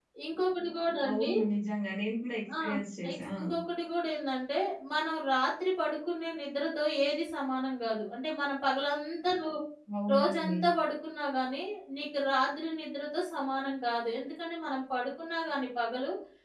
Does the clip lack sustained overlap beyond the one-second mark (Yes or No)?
Yes